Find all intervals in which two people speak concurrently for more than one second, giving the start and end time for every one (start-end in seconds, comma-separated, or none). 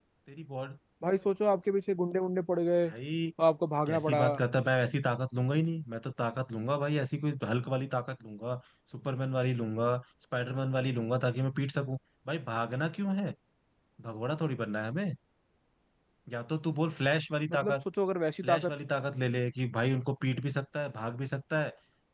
none